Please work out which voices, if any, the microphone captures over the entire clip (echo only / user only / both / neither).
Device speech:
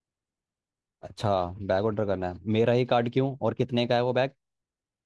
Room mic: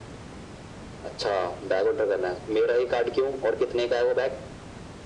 echo only